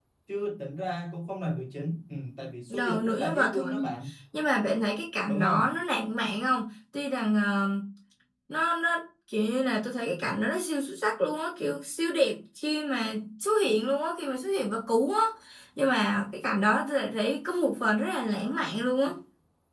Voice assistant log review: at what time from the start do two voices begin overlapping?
3 s

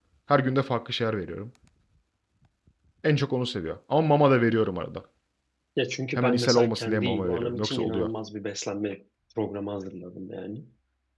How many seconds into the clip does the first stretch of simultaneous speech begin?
6 s

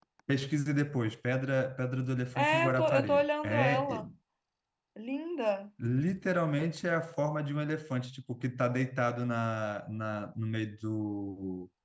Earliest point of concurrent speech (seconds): 2 s

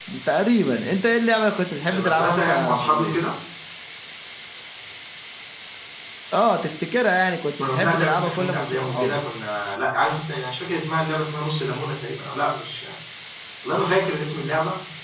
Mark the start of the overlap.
2 s

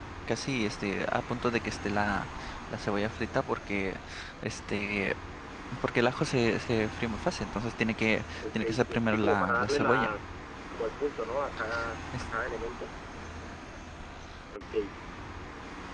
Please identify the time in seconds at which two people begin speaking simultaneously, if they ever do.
8 s

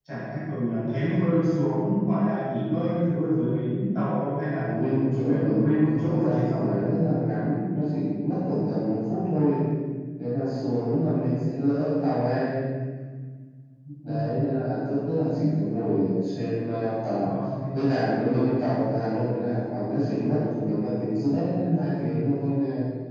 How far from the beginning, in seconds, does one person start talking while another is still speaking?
5 s

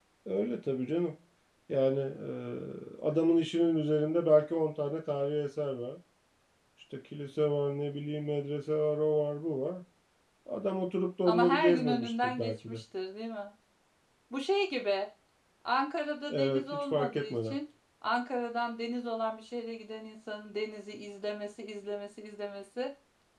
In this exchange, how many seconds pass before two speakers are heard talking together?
11 s

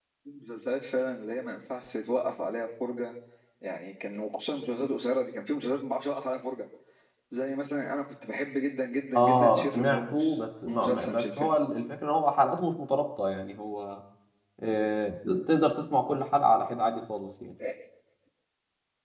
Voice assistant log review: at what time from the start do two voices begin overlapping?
9 s

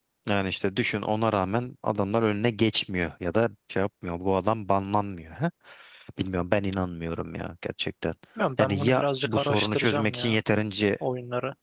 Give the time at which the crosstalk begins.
9 s

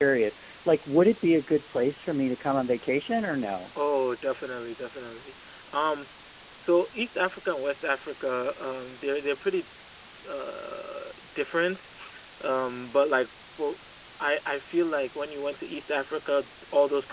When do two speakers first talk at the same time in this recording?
none

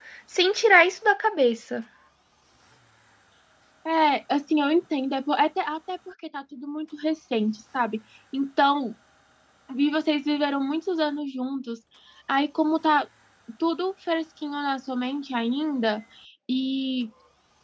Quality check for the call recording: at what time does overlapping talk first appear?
none

